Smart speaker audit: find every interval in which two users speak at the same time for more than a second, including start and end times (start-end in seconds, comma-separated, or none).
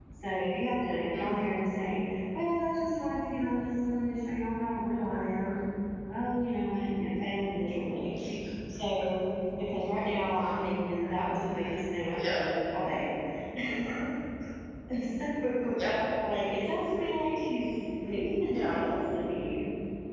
none